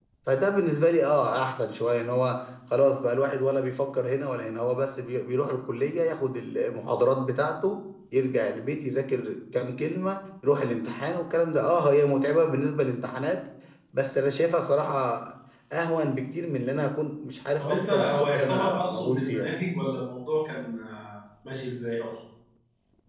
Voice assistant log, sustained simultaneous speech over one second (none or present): present